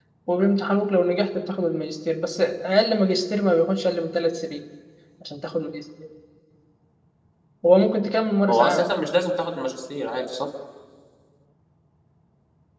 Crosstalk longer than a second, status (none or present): none